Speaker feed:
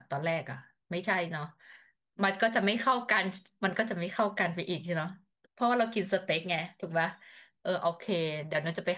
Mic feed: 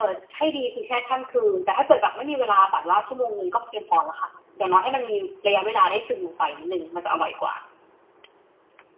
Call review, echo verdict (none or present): none